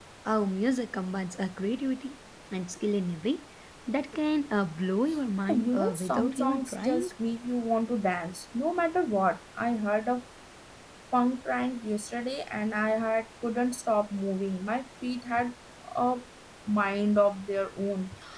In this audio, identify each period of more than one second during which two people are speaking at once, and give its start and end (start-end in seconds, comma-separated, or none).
5.5-7.1